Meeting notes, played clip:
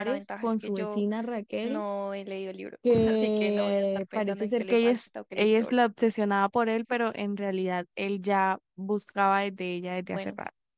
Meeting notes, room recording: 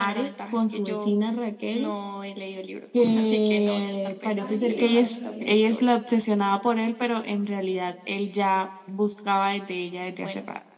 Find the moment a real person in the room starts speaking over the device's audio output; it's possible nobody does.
4.4 s

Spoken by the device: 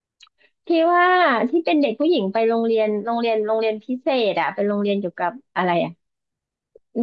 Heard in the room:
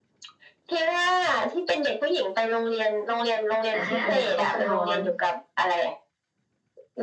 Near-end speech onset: 3.7 s

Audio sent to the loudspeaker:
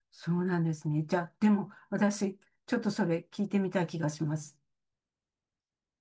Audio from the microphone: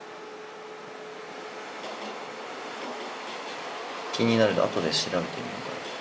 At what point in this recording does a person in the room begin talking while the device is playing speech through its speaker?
4.1 s

